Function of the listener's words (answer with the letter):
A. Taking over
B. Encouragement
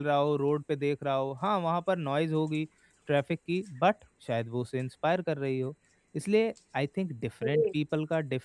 B